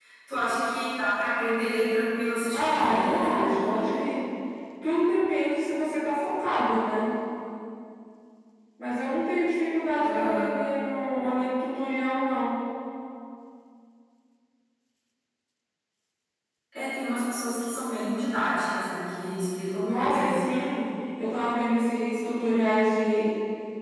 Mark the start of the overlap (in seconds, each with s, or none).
2.5 s